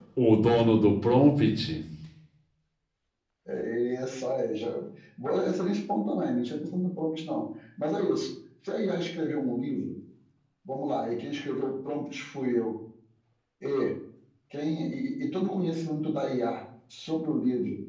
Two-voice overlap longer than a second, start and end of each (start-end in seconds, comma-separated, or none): none